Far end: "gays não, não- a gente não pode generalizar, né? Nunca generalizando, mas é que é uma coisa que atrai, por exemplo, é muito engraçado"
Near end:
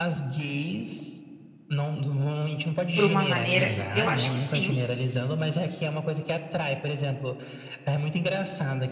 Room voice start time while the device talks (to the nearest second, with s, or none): 3 s